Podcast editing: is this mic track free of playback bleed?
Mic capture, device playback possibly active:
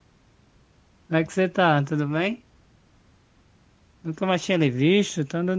Yes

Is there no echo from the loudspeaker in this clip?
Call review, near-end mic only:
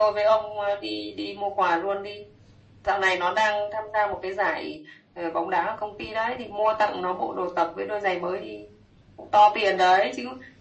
No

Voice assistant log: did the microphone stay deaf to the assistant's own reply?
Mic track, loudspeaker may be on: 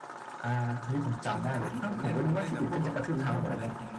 No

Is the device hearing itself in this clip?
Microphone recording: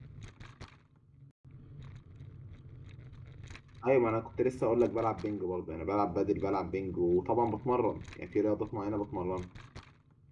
No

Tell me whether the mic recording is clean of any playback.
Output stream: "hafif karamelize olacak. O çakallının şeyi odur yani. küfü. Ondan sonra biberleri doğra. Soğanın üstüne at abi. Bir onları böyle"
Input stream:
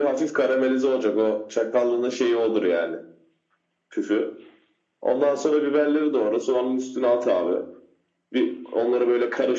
No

